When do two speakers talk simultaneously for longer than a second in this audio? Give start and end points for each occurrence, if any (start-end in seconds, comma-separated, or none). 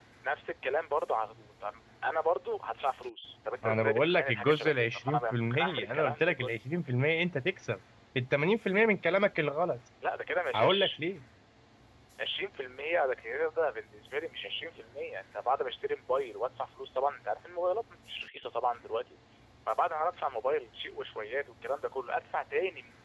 3.6-6.5